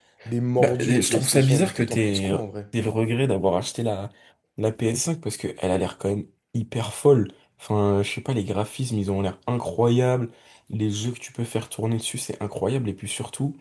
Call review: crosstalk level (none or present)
present